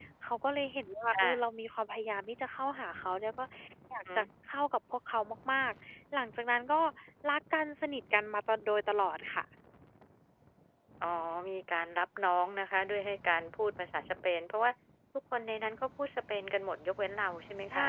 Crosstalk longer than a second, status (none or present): none